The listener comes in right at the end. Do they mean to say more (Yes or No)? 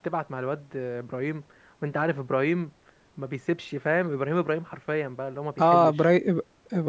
Yes